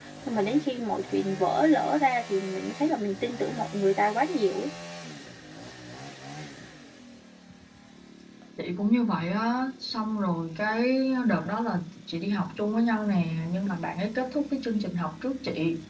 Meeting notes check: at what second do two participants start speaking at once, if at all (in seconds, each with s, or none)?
none